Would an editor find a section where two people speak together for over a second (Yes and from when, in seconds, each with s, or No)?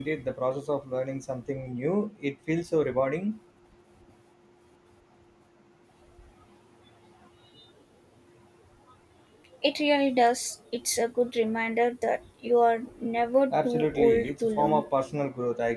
Yes, from 13.5 s